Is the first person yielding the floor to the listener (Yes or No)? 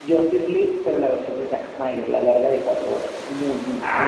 Yes